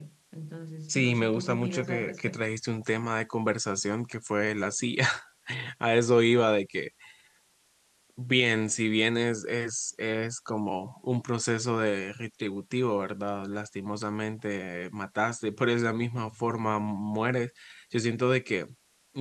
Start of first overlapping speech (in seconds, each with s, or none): 0.9 s